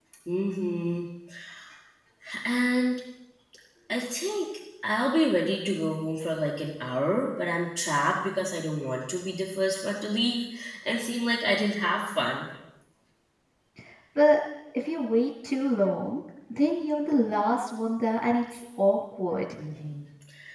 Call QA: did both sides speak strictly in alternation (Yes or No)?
Yes